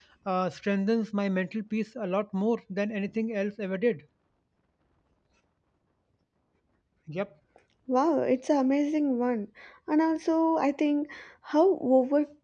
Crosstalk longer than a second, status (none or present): none